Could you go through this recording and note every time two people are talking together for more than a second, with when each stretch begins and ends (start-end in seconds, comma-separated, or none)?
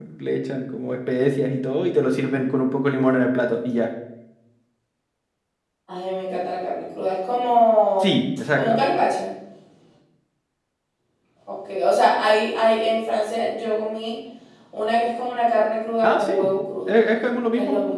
none